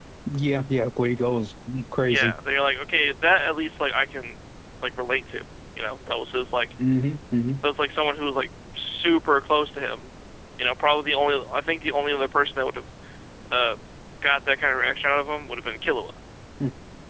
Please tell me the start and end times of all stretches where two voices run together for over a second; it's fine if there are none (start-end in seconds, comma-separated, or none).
none